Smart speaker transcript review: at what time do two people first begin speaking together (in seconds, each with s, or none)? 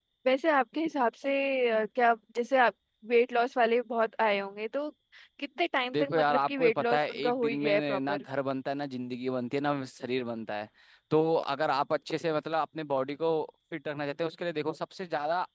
5.9 s